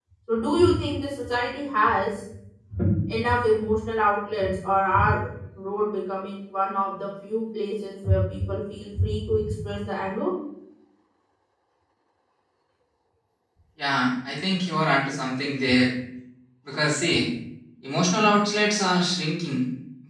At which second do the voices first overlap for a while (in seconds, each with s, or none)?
none